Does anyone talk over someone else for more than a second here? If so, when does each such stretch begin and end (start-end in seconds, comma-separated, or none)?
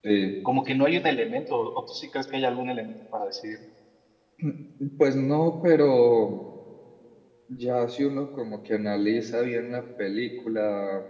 none